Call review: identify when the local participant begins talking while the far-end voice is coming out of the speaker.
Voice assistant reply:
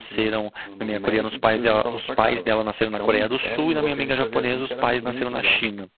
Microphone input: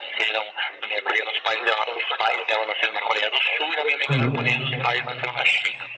4.0 s

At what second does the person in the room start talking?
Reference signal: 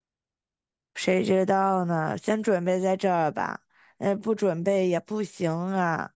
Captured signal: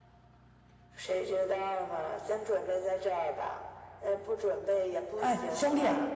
5.2 s

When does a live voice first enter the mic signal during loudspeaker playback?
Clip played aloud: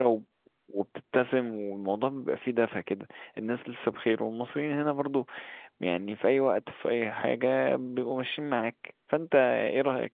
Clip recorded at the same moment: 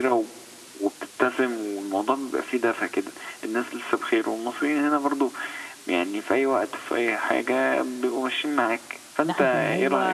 9.2 s

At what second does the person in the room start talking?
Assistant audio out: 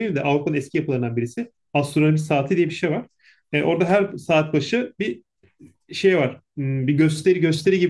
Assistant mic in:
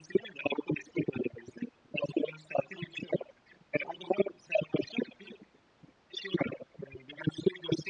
none

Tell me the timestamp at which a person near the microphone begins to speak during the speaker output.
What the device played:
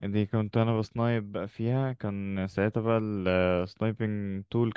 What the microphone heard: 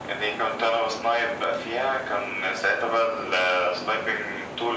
none

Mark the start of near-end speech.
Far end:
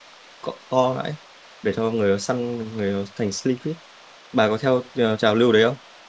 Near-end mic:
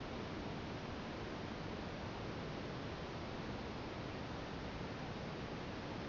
none

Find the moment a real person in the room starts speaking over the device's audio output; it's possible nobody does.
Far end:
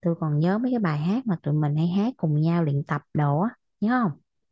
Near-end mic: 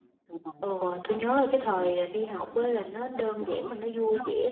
0.6 s

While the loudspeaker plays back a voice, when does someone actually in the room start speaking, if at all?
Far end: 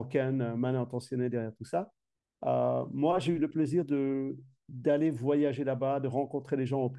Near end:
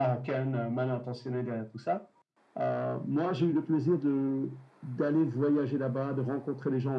none

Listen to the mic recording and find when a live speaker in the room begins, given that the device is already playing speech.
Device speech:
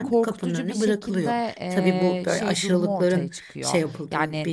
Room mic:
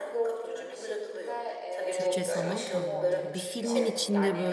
1.9 s

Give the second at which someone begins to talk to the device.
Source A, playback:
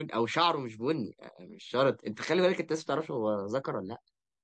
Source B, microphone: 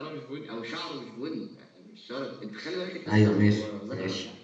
3.1 s

